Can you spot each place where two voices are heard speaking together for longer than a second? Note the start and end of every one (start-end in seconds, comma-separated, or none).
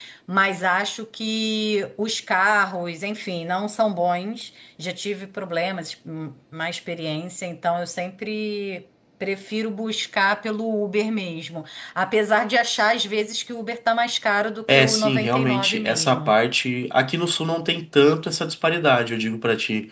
14.7-16.4